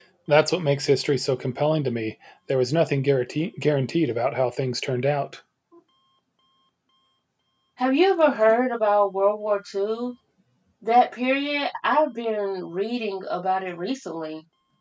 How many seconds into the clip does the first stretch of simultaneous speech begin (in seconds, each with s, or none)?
none